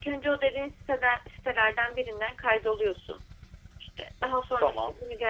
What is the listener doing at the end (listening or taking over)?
listening